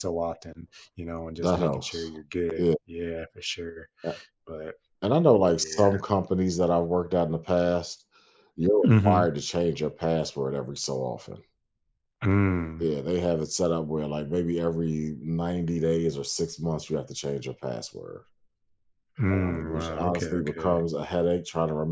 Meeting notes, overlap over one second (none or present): present